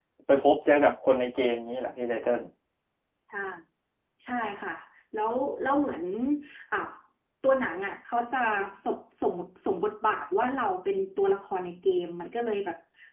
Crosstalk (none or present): none